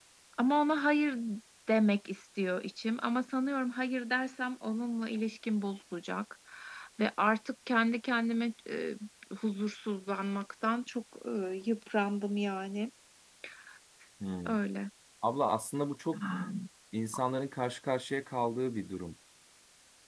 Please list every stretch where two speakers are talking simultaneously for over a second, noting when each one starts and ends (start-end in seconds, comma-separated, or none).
none